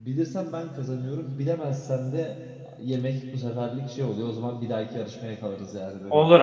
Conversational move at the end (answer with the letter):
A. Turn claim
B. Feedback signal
A